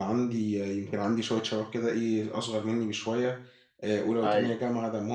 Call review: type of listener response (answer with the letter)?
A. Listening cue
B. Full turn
A